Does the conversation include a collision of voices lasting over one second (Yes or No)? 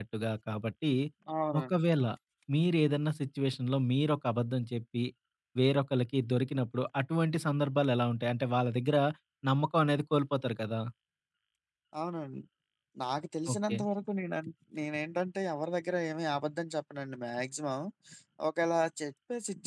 No